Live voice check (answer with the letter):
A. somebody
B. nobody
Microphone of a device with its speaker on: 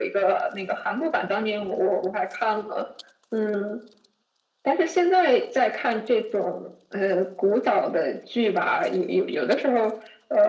B